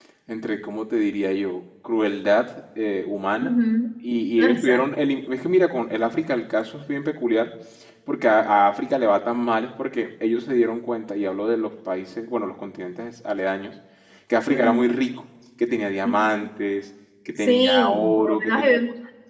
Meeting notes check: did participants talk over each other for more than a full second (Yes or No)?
Yes